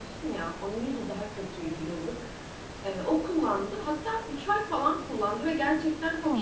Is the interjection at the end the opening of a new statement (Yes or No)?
No